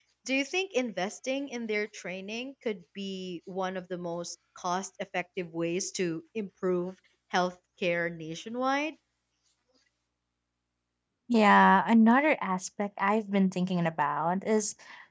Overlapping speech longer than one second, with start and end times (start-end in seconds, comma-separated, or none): none